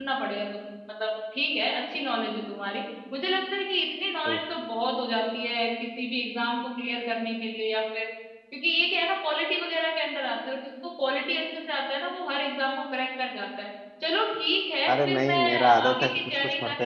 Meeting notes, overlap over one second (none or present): present